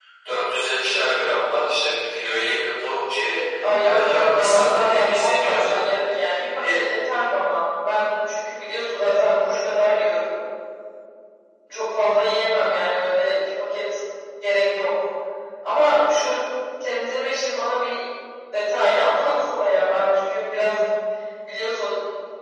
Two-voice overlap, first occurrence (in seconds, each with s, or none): 3.6 s